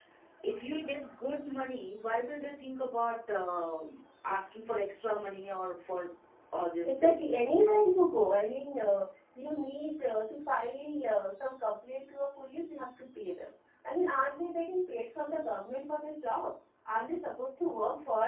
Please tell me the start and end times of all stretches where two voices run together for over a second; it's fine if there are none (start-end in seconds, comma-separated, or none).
none